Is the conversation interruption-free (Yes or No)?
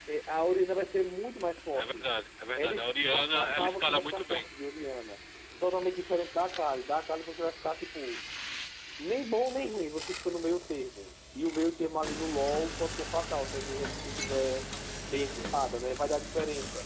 No